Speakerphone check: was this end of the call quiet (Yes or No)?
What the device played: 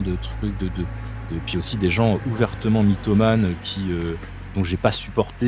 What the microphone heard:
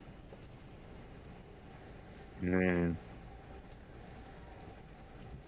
No